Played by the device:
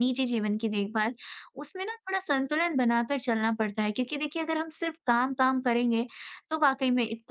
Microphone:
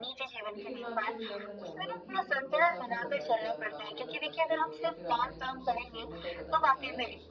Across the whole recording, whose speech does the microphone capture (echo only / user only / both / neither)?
both